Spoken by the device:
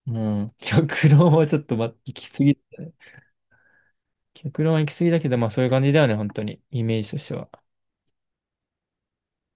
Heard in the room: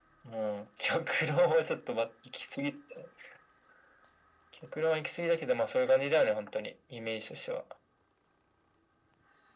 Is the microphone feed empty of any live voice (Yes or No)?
Yes